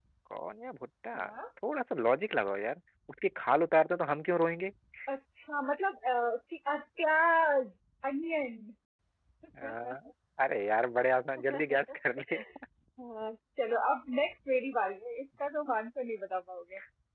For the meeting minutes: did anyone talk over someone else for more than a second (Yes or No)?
No